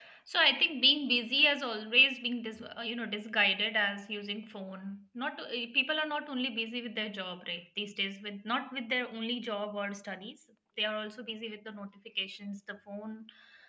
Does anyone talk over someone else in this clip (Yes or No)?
No